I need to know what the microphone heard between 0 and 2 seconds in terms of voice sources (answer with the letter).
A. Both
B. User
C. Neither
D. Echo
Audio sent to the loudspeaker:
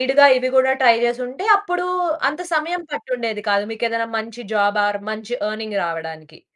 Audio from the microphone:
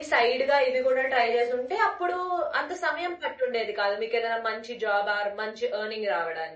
D